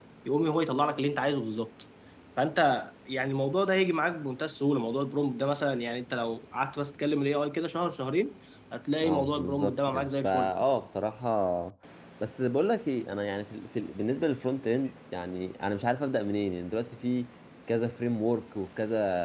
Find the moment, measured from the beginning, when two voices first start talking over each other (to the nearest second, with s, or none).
9 s